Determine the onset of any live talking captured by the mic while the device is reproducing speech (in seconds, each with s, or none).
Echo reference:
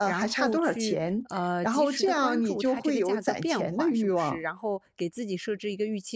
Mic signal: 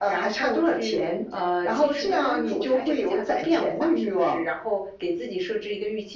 none